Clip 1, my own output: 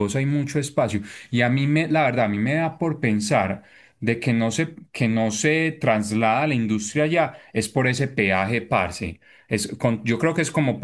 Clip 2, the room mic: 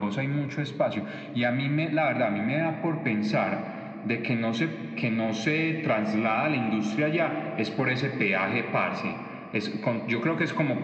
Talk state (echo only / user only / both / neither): echo only